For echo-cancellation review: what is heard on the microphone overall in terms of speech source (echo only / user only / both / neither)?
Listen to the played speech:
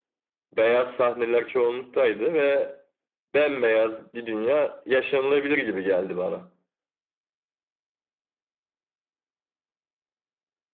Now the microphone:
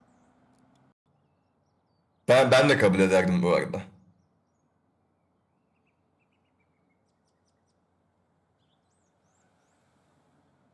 user only